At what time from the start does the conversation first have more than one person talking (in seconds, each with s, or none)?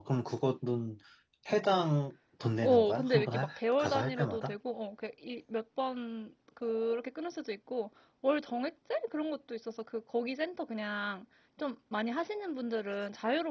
2.6 s